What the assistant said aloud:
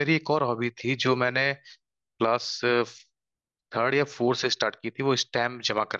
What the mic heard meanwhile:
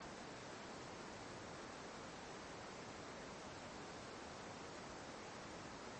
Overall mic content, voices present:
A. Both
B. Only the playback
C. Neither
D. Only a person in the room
C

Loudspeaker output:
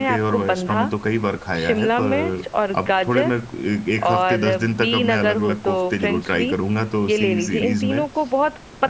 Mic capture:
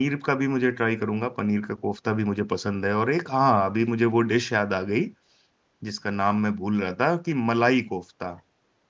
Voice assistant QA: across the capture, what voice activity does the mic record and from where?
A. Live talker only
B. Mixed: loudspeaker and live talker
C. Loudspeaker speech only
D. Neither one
A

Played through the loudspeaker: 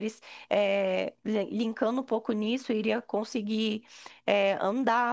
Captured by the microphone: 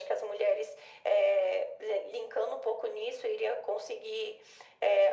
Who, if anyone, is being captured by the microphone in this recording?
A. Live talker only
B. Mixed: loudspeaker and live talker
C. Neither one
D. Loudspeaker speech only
D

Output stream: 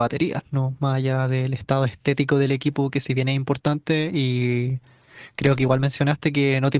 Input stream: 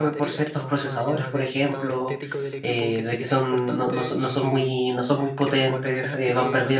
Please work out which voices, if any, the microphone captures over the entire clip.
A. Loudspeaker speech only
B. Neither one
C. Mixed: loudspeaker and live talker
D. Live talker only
C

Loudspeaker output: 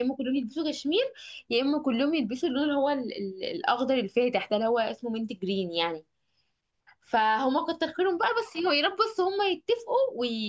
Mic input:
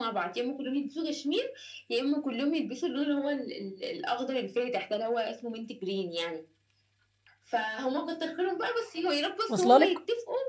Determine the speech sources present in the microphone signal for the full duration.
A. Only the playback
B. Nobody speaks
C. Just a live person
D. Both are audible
D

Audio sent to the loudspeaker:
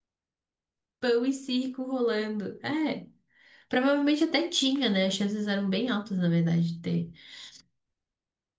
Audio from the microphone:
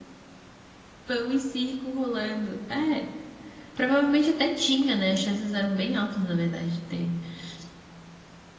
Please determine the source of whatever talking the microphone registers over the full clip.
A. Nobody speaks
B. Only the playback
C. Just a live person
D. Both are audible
B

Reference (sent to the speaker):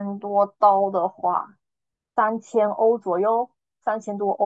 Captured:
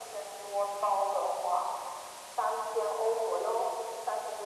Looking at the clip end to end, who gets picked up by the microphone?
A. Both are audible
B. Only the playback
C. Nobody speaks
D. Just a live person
B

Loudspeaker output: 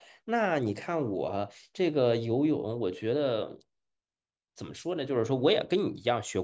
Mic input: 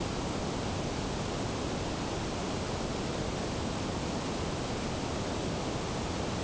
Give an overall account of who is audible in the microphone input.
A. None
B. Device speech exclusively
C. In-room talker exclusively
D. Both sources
A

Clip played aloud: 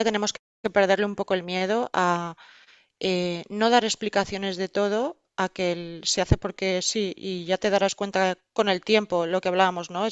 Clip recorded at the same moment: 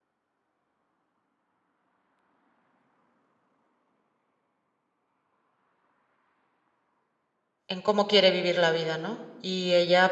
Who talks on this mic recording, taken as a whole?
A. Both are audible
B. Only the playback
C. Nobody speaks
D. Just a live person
D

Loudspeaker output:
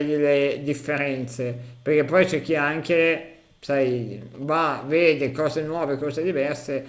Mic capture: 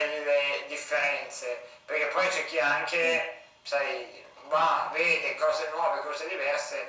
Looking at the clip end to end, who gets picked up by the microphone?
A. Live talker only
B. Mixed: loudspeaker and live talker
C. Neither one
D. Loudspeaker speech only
B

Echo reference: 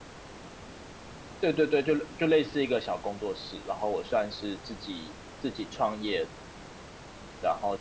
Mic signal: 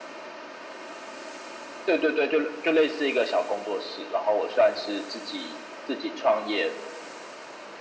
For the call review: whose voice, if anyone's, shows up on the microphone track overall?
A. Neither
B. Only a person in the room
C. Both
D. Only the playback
D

